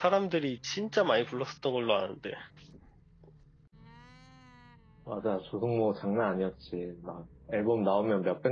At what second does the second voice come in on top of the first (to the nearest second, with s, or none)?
none